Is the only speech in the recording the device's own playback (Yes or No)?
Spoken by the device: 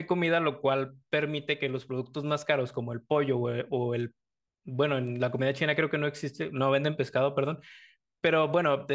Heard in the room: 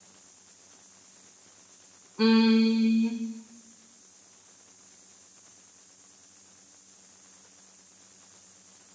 No